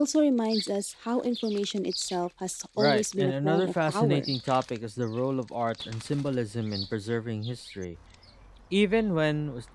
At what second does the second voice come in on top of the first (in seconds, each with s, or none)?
2.8 s